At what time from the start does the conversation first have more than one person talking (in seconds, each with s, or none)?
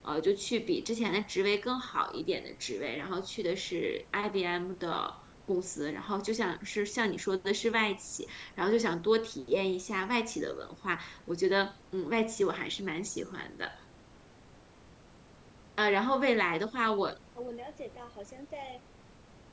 none